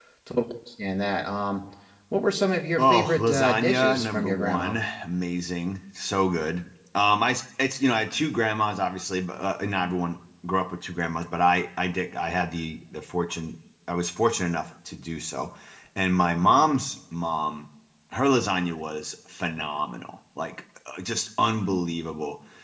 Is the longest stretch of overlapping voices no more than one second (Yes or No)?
No